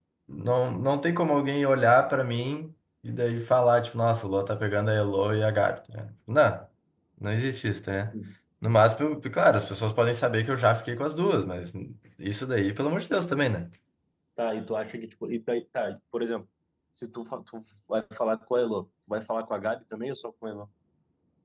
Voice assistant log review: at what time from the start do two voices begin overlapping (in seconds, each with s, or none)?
none